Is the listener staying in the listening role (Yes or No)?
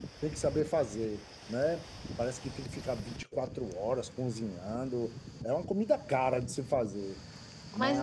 No